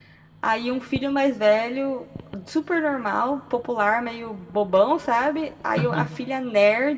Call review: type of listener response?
listening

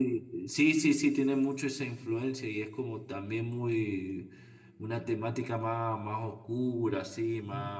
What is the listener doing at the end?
listening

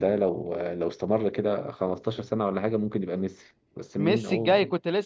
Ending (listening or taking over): taking over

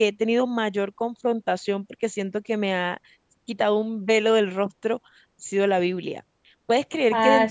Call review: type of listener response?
listening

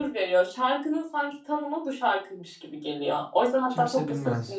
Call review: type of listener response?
listening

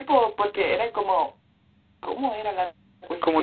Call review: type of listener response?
taking over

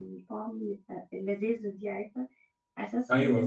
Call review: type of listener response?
listening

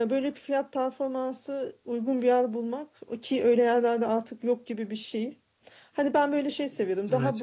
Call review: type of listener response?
listening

